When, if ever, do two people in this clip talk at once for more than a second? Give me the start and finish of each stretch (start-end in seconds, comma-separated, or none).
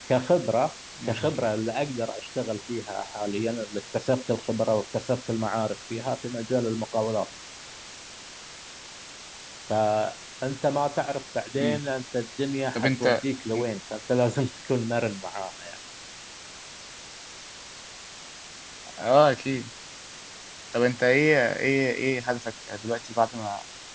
none